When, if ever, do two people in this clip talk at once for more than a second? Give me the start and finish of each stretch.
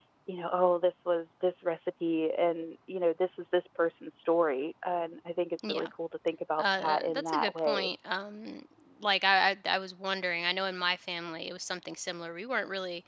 6.6-7.9

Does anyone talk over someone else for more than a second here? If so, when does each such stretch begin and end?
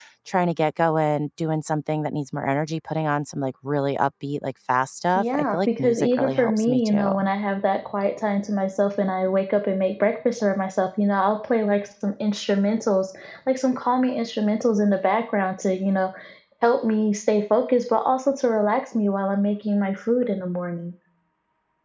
5.2-7.1

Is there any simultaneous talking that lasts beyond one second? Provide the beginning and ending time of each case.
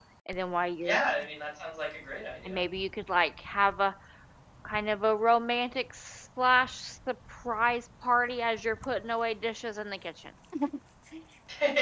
none

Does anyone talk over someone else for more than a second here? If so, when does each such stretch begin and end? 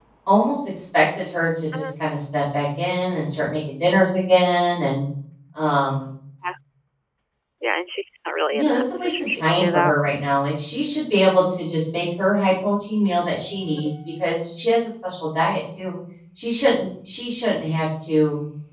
8.5-9.9

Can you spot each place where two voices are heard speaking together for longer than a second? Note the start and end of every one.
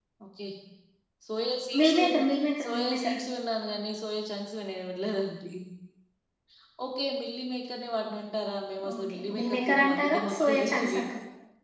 8.9-11.0

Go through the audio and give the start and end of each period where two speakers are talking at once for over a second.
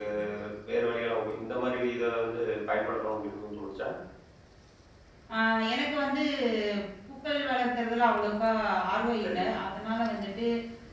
none

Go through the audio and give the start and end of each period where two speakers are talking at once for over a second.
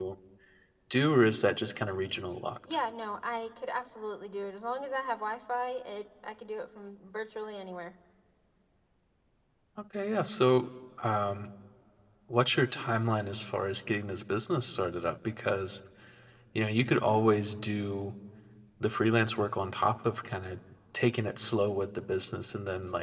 none

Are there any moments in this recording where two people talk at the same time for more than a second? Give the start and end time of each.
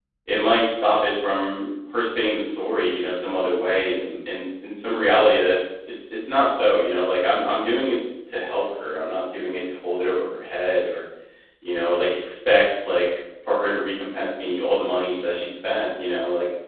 none

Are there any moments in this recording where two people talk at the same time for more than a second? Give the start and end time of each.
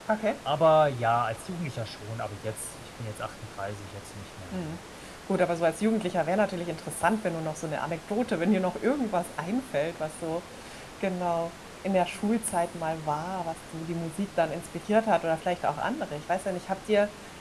none

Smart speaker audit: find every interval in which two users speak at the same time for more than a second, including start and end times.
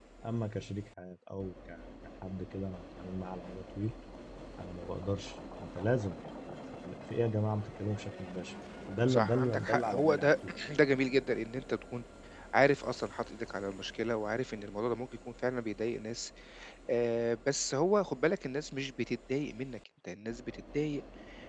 9.1-10.3

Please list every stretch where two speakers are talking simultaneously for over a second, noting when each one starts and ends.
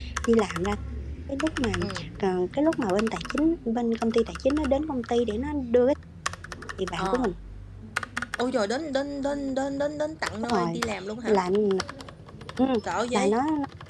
none

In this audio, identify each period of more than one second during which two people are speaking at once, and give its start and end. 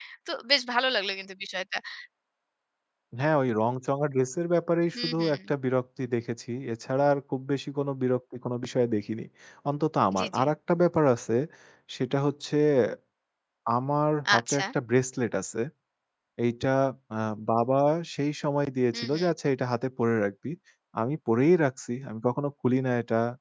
none

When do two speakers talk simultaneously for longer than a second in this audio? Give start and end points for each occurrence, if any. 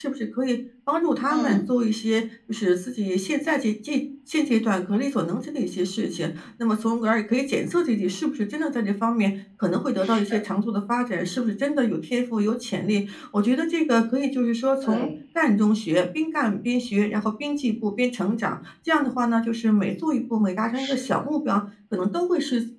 none

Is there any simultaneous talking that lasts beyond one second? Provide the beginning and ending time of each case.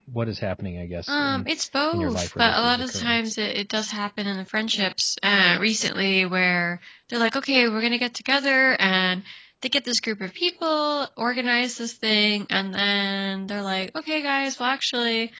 1.9-3.2

